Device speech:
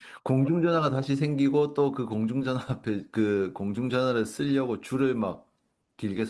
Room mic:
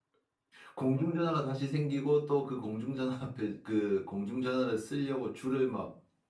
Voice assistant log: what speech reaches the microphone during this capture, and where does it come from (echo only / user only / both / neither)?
echo only